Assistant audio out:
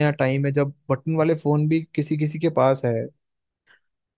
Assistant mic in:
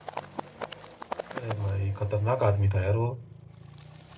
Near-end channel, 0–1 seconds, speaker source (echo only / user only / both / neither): neither